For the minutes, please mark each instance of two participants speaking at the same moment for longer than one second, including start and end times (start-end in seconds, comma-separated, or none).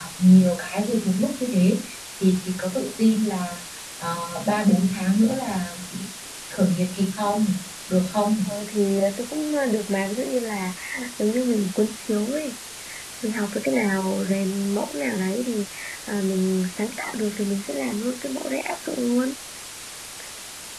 none